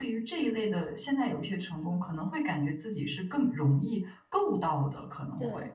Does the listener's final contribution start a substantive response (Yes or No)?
Yes